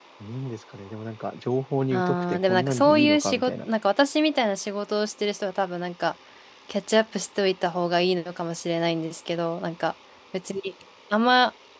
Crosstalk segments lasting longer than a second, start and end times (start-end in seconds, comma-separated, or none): 1.9-3.7